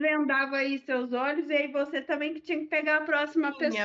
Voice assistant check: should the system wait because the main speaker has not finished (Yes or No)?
No